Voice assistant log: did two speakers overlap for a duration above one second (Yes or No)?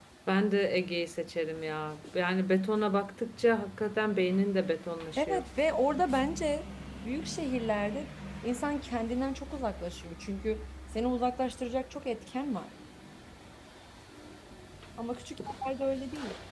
No